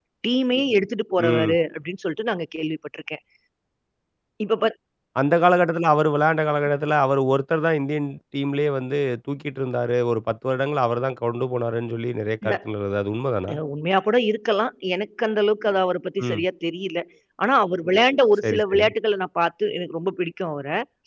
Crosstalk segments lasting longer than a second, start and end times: none

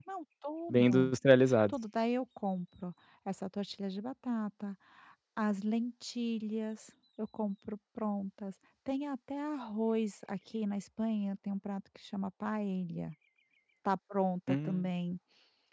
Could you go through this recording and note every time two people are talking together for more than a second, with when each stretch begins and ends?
none

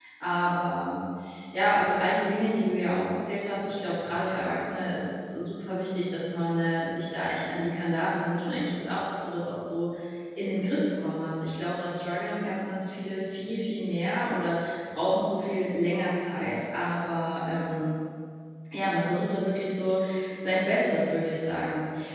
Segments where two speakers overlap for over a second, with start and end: none

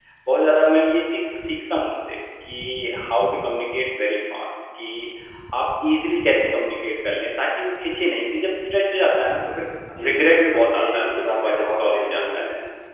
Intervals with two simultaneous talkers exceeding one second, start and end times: 10.0-12.4

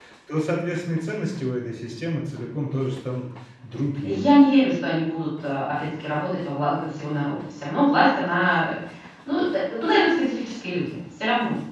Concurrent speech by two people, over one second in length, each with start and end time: none

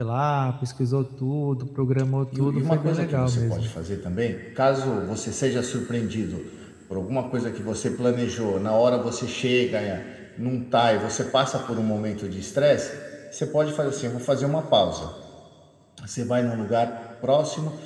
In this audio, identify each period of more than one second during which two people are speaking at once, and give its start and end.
2.4-3.7

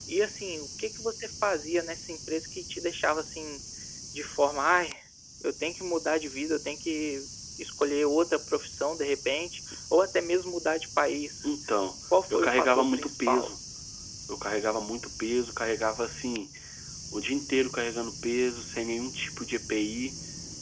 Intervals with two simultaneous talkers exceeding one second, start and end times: 12.3-13.5

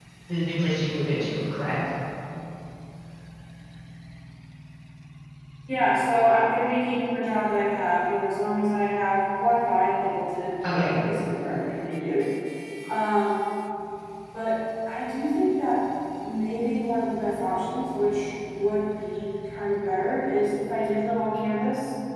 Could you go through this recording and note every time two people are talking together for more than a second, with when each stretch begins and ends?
none

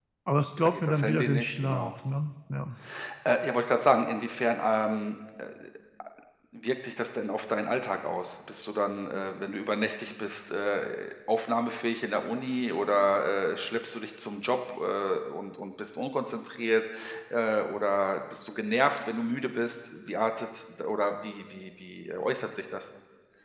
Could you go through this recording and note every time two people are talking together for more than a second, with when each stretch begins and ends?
0.6-1.9

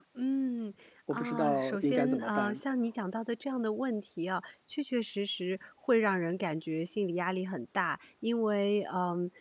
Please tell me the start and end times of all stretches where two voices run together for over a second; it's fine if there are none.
1.1-2.6

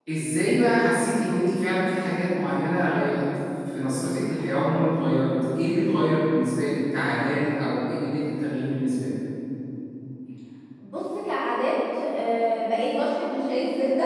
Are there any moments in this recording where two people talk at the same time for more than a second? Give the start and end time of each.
none

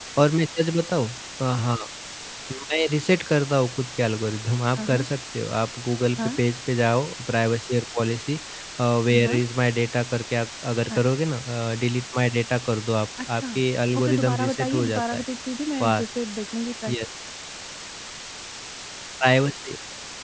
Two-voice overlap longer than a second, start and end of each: 14.0-15.2

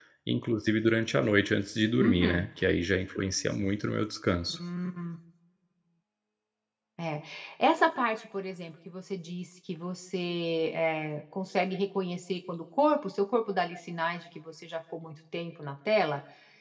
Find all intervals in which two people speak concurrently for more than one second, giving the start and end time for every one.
none

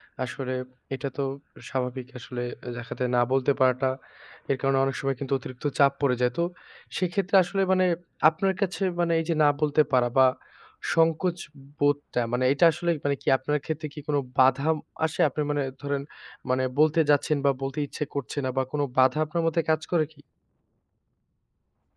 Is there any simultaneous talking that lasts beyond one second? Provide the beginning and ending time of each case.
none

